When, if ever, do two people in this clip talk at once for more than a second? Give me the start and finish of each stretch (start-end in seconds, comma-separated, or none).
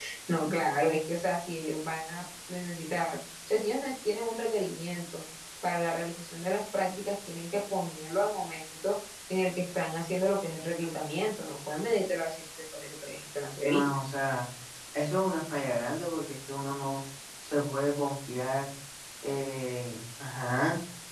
none